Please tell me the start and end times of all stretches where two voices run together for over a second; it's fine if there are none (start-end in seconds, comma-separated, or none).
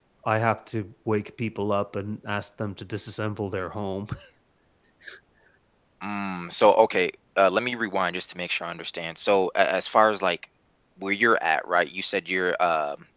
none